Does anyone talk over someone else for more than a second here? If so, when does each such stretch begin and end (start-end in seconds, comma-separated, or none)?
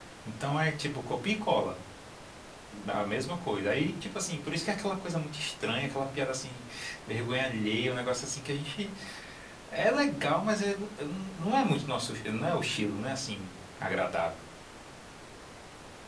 none